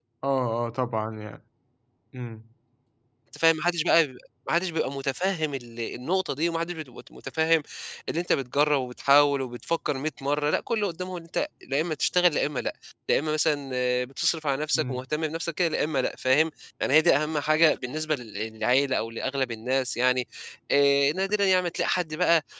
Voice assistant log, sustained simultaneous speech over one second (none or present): none